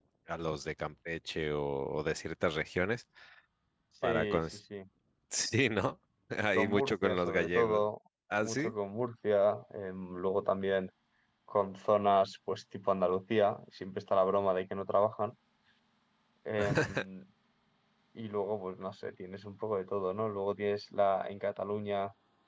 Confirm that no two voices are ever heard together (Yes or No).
No